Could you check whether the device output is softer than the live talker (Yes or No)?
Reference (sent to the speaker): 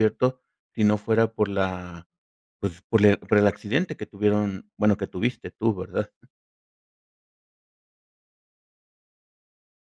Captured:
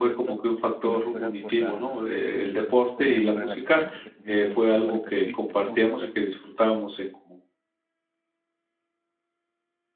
Yes